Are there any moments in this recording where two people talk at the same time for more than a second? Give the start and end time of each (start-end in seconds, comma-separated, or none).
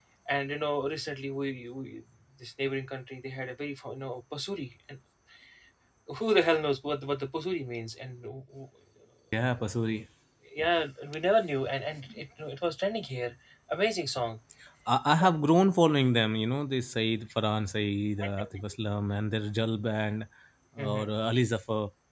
none